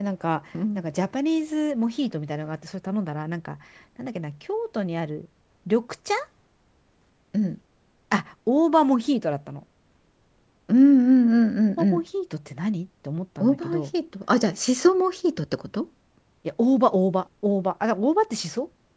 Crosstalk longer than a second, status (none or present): none